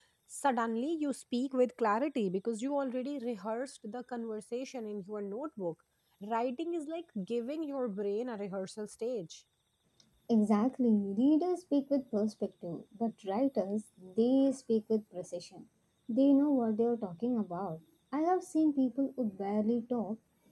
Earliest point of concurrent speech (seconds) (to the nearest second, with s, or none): none